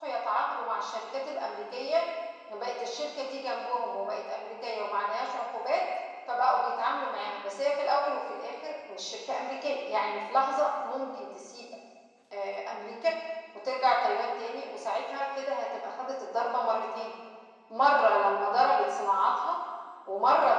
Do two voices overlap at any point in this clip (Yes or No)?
No